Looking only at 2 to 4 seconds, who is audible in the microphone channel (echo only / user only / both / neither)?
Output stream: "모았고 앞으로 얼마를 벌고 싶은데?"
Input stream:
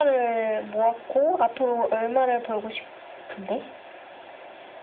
echo only